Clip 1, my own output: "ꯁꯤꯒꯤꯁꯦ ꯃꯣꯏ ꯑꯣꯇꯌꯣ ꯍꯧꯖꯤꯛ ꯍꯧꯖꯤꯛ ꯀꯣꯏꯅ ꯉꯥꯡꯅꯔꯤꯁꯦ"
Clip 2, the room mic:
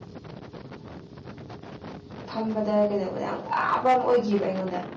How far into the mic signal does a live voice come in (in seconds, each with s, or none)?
2.3 s